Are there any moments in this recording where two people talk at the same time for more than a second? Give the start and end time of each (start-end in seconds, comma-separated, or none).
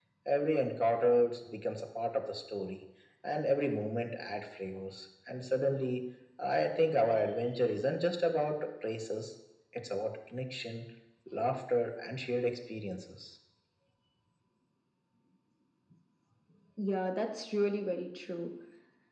none